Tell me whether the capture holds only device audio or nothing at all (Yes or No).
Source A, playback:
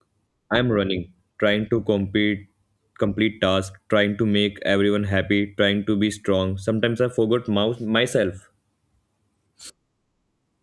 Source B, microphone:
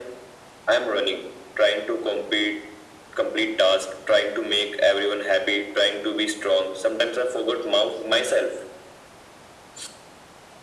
Yes